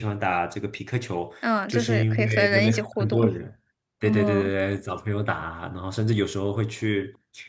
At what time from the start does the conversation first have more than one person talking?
1.7 s

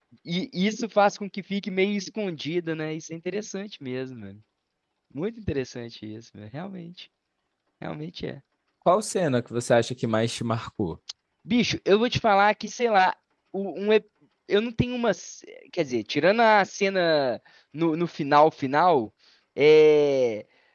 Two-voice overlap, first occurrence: none

